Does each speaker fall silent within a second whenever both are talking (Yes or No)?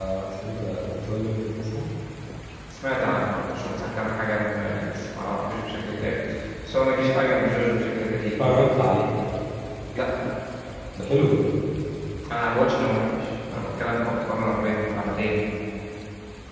Yes